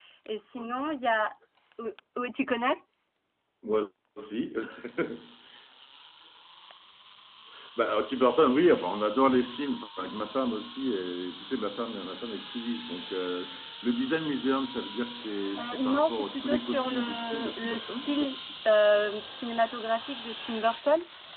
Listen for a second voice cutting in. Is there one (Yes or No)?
Yes